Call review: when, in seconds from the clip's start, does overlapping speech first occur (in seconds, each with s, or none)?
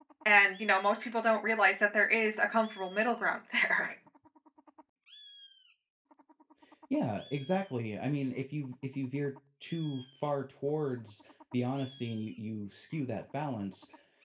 none